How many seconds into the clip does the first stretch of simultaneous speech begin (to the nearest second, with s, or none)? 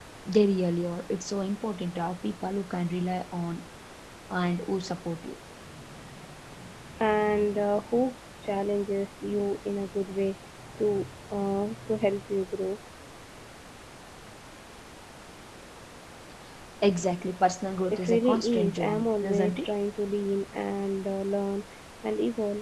18 s